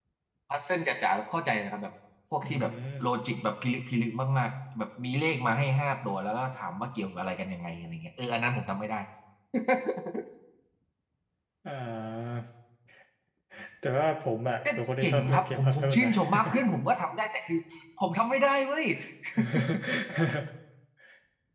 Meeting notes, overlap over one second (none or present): present